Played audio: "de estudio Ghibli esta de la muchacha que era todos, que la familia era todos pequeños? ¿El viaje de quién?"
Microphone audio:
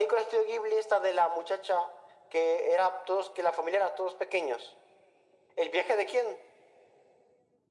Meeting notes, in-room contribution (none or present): none